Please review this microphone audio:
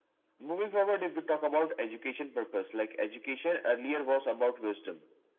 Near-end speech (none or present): none